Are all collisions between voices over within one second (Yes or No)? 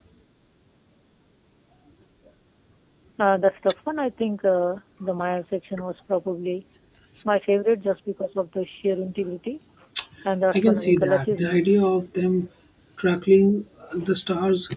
No